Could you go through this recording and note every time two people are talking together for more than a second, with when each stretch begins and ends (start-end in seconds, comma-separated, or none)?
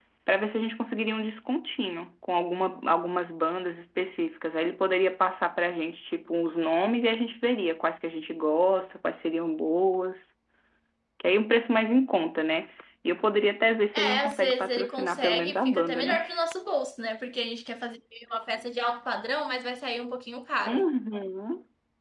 13.9-16.1